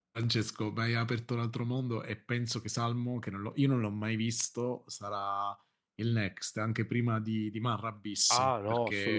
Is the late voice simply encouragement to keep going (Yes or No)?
No